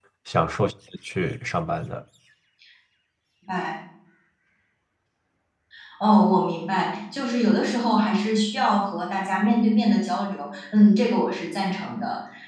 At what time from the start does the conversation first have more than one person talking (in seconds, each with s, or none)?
none